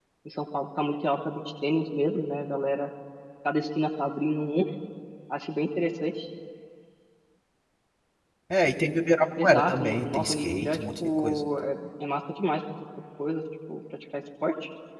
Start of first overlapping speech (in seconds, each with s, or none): 9.4 s